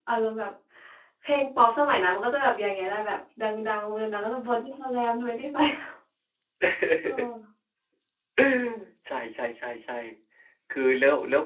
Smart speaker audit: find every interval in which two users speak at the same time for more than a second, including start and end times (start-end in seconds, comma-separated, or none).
none